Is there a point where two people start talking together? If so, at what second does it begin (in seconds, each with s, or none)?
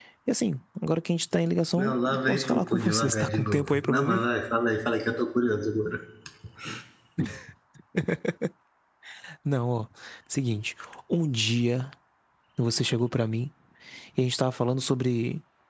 1.8 s